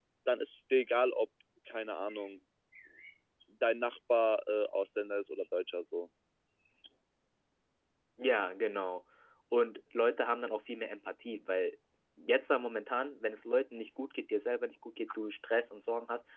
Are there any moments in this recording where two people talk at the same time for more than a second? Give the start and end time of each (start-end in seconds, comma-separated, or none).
none